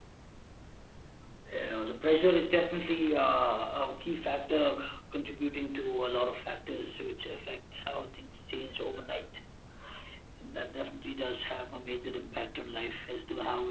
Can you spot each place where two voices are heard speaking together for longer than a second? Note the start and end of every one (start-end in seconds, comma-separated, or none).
none